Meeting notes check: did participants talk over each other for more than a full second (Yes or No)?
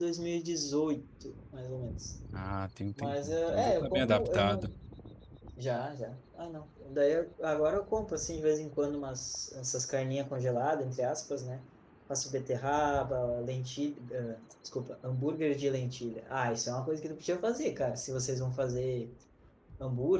Yes